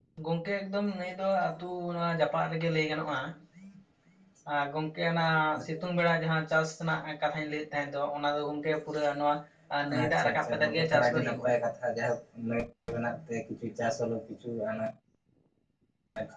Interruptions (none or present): present